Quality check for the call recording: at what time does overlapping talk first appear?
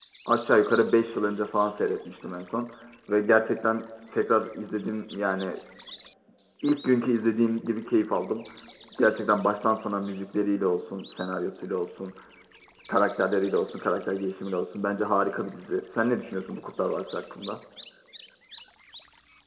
none

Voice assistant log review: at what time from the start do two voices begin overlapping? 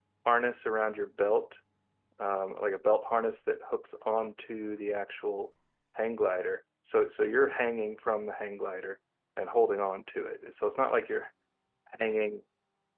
none

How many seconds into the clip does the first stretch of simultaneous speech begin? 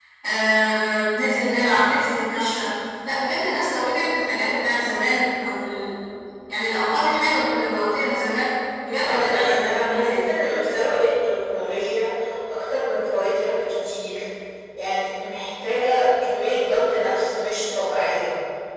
9 s

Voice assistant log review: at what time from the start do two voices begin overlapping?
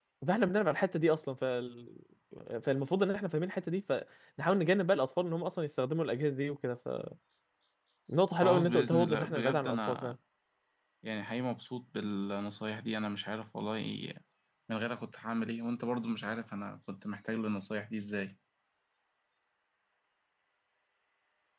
8 s

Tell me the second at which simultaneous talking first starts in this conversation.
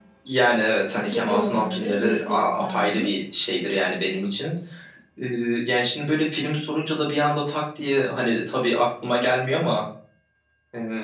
1 s

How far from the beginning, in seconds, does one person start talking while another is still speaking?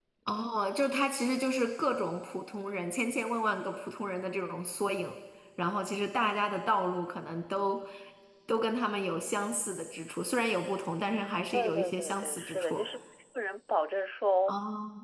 12 s

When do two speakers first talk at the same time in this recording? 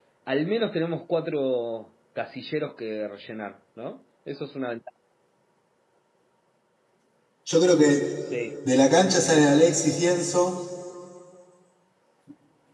none

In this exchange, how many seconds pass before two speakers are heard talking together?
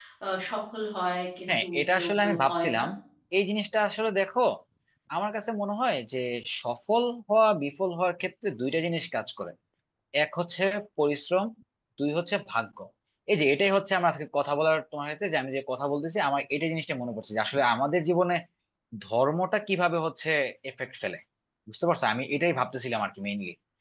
1 s

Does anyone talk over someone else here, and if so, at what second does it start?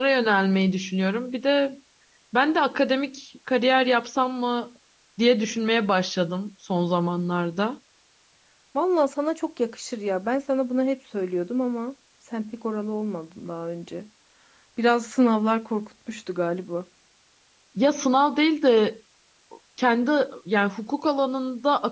none

